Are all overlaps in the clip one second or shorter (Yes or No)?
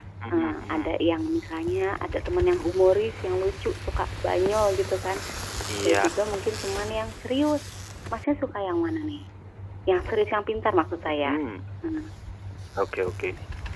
Yes